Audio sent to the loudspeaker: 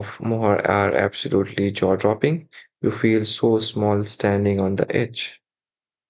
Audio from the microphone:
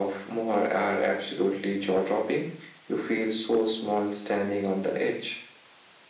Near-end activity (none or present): none